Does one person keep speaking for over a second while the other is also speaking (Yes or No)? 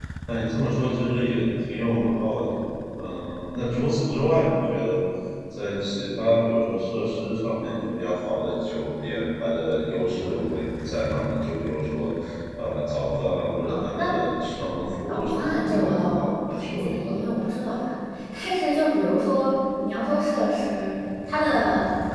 Yes